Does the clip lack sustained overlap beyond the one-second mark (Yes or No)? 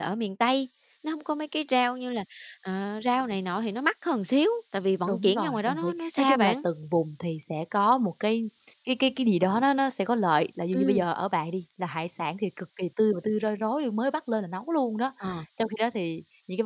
No